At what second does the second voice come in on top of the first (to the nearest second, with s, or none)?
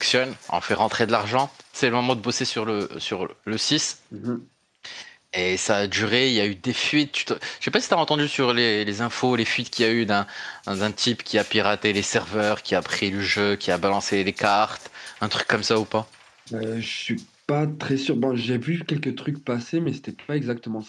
none